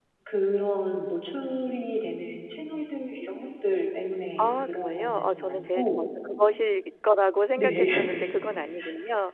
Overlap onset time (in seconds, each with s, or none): 4.4 s